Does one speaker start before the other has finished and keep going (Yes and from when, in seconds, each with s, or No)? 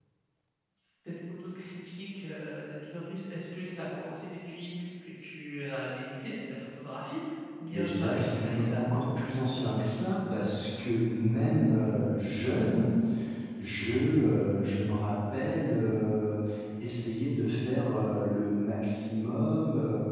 Yes, from 7.7 s